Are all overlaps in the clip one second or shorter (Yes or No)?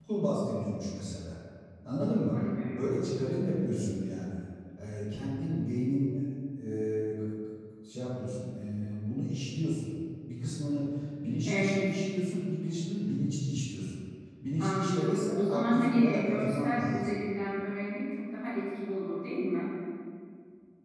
No